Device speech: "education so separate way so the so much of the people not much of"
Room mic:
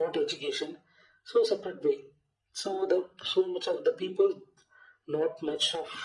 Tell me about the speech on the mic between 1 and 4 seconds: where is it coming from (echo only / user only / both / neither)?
echo only